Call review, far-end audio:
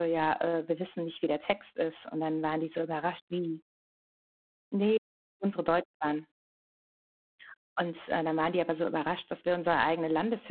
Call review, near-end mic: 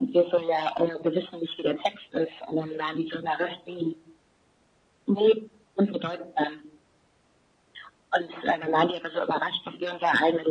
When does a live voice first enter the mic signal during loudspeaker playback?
none

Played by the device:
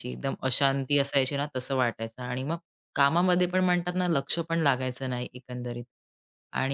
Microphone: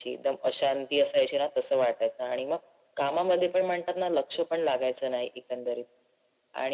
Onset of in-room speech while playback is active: none

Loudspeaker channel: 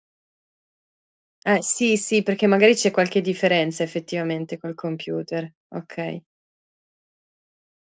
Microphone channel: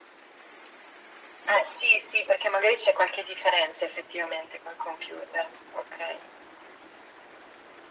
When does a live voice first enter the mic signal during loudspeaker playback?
none

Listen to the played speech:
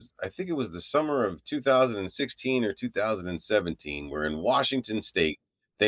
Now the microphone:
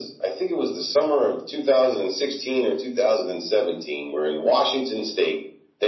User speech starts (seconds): none

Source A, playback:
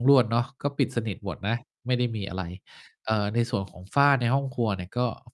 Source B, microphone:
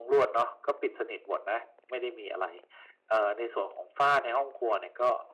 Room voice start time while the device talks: none

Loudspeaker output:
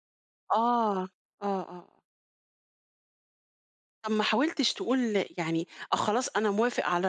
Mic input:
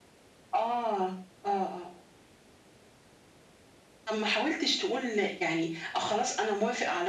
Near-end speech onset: none

